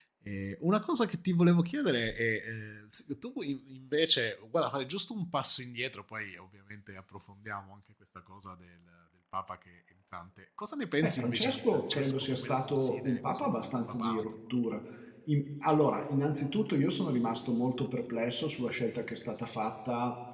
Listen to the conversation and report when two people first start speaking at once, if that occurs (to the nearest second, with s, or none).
11 s